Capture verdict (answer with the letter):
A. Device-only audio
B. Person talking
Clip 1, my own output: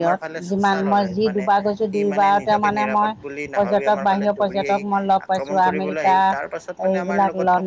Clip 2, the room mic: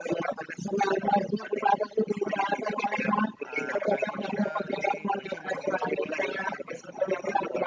B